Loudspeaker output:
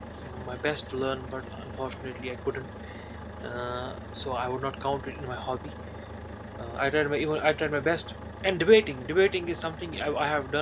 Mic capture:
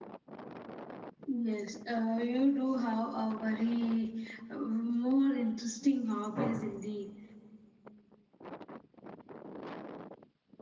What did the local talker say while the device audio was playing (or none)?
yes. Uh, you do have a very uh, more interesting hobbies indeed.